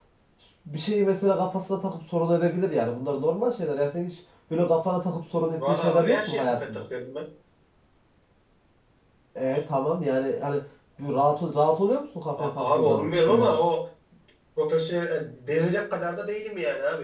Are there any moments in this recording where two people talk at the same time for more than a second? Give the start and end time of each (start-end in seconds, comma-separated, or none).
5.5-6.8, 12.4-13.6